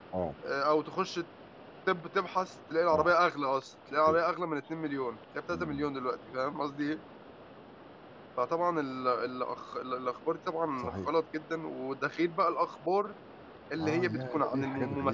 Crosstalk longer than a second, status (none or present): present